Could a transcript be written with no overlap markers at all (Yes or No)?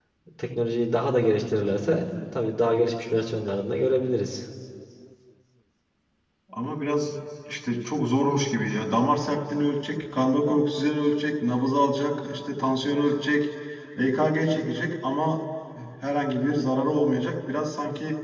Yes